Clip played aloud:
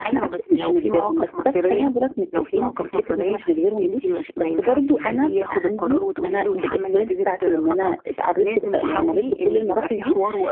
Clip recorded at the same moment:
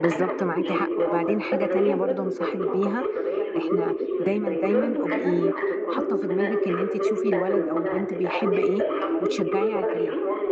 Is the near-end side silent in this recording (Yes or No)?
No